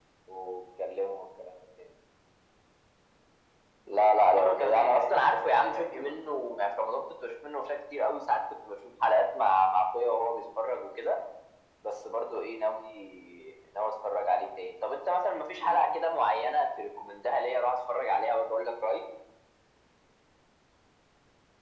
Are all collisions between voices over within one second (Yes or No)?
No